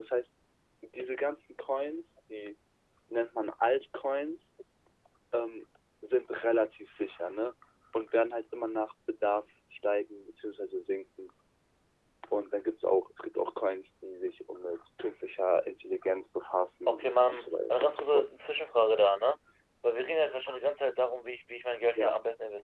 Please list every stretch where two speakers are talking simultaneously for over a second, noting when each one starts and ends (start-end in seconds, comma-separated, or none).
16.9-18.2